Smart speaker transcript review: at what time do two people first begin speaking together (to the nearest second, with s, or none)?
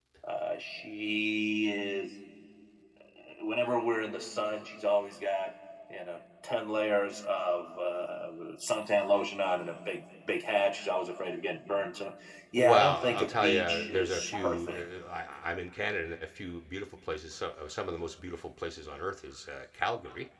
13 s